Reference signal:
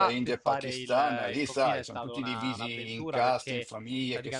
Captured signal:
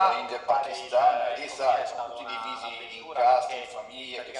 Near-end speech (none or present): none